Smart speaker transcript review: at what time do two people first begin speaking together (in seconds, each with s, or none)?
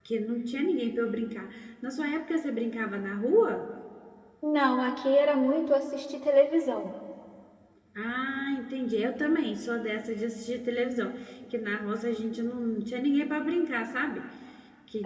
none